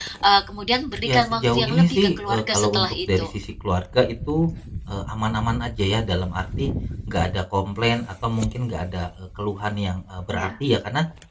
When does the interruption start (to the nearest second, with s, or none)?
1 s